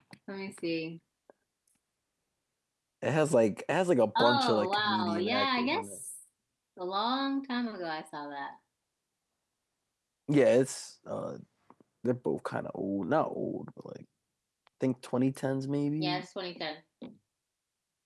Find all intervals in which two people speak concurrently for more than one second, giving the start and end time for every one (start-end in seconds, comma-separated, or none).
4.2-6.0